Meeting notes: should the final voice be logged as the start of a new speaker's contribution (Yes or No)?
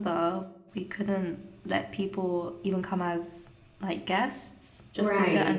No